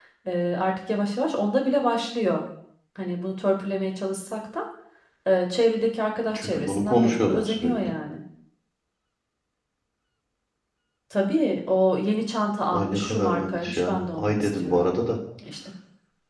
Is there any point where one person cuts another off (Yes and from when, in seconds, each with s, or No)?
Yes, from 6.3 s